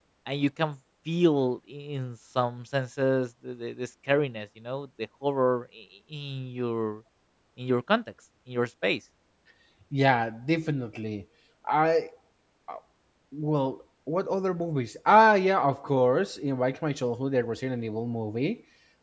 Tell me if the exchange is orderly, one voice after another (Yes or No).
Yes